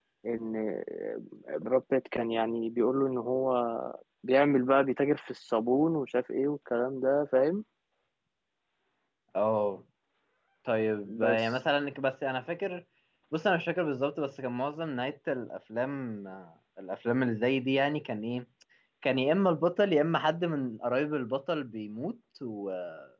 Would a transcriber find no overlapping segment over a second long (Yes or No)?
Yes